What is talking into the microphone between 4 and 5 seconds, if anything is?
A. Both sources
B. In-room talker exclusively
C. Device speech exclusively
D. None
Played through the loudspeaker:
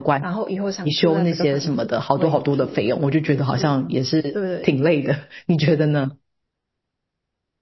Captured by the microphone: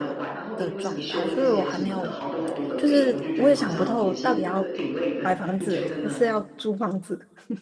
A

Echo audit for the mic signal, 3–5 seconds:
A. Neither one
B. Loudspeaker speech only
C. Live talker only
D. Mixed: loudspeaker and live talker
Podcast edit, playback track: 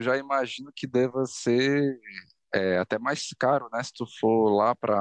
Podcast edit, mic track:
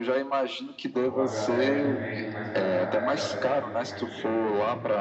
D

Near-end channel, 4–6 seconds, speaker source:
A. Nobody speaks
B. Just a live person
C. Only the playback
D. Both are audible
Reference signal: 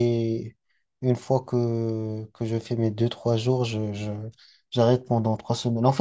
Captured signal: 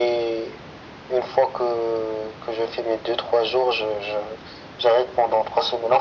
C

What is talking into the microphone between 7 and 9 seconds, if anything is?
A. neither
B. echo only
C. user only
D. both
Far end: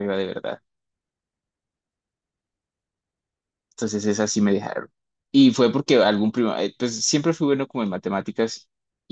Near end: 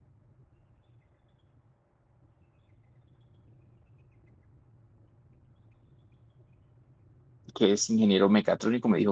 C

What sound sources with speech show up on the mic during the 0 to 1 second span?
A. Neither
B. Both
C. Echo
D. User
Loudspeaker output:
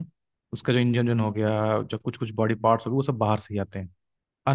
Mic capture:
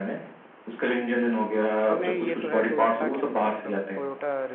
C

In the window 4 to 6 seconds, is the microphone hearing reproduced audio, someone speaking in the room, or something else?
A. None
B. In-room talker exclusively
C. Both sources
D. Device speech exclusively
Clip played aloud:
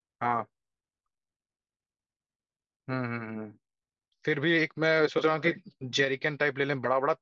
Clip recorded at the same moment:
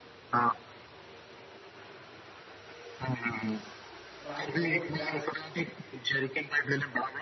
C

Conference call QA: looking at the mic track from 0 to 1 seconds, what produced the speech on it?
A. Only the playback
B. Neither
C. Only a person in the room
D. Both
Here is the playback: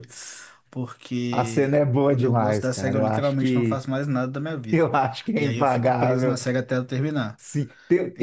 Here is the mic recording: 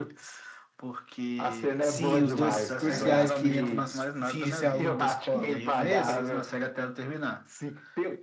A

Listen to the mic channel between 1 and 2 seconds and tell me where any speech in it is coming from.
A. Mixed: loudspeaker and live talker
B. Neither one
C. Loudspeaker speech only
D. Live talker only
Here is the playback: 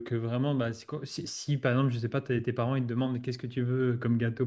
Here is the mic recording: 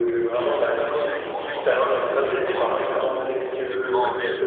A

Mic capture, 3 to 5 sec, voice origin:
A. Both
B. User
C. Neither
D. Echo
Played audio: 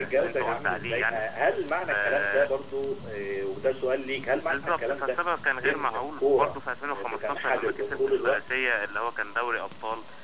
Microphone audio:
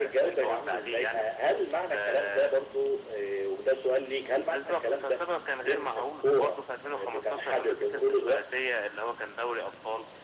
D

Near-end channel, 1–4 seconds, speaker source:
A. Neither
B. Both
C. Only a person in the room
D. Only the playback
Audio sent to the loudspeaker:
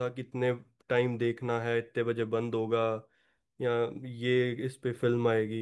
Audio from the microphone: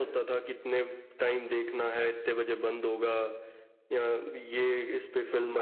D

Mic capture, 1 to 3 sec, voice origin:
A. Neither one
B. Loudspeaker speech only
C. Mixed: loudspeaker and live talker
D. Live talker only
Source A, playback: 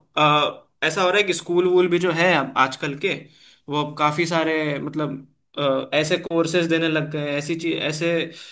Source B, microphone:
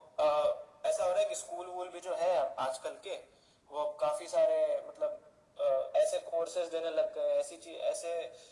B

